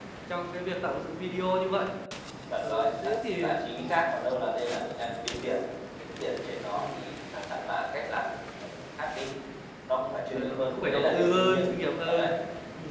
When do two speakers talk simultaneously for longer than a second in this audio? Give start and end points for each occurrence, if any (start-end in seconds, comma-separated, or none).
2.6-4.0, 10.3-11.6